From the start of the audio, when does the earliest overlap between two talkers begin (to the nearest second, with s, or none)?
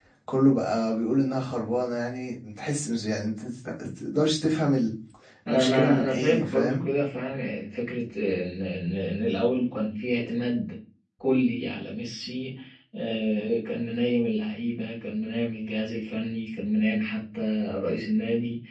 5 s